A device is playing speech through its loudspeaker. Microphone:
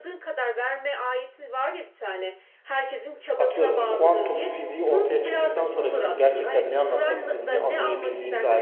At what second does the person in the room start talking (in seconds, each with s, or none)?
3.4 s